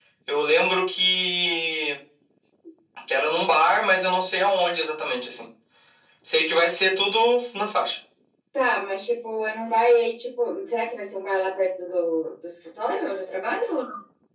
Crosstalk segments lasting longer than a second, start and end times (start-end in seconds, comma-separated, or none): none